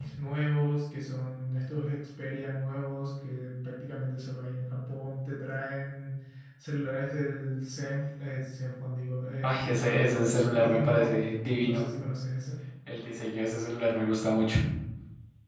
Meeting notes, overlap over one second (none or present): present